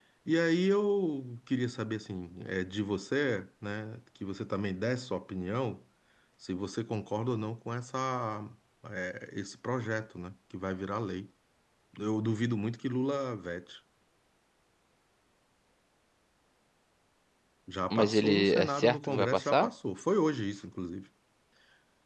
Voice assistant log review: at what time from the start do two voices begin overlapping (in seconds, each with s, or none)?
17.9 s